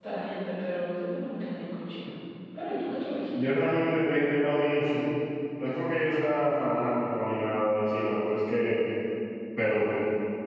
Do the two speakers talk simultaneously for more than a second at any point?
No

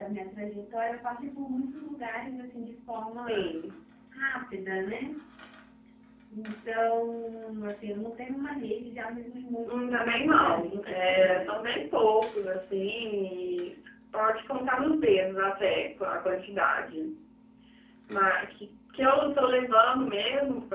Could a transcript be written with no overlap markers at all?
No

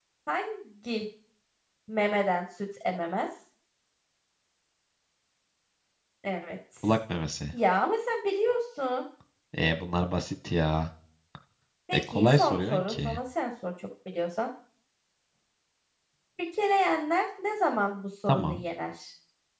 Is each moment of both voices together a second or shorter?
No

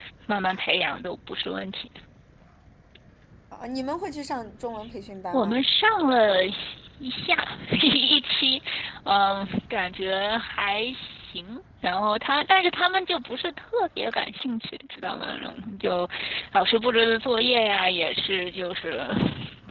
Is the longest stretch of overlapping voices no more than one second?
Yes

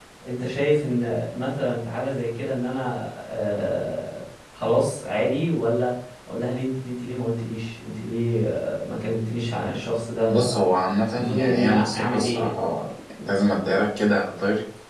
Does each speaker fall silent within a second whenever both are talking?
No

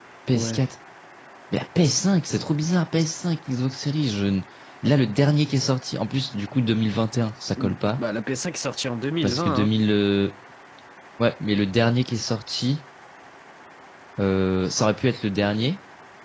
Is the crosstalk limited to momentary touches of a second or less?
Yes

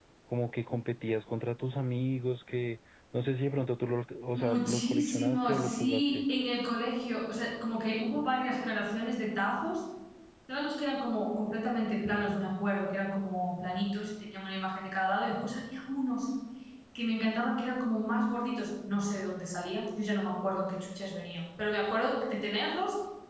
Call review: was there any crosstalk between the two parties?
Yes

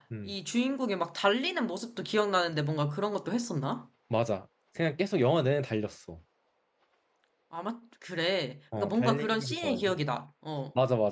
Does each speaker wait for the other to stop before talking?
No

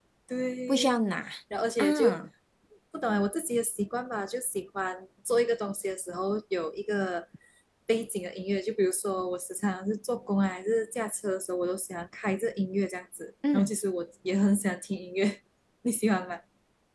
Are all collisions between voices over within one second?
Yes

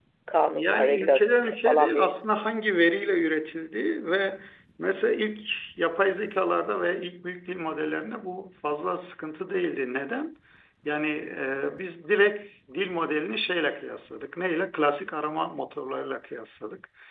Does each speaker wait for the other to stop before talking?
No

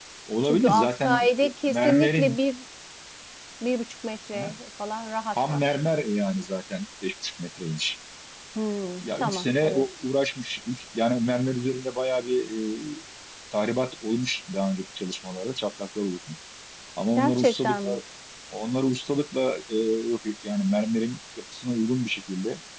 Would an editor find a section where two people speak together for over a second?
Yes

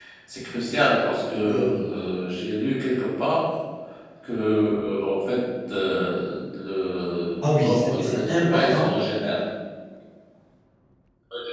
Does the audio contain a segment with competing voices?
Yes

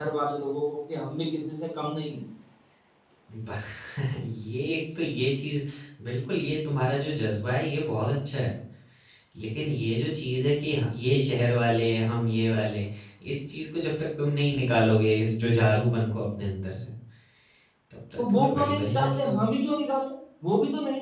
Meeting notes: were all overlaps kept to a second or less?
No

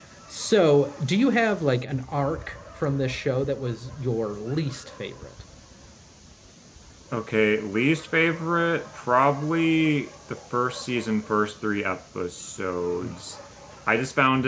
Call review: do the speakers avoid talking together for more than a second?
Yes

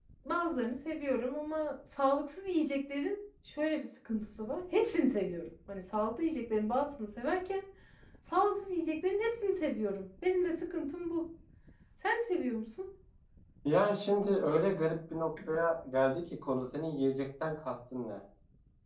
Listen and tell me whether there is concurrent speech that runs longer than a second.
No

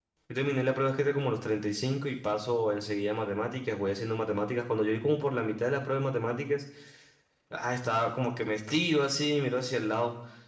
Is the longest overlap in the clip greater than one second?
No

